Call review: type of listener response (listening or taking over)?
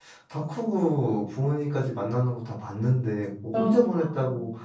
listening